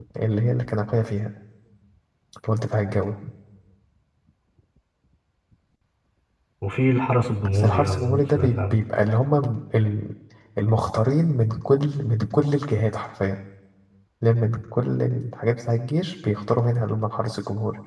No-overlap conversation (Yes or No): No